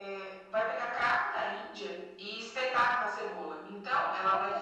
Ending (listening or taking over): listening